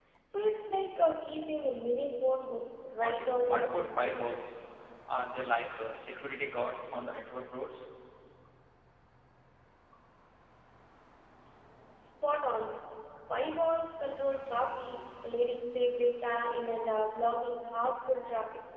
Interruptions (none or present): present